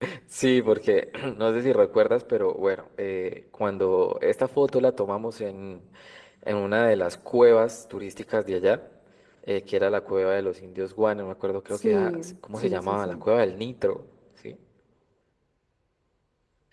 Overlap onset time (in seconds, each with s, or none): 11.7 s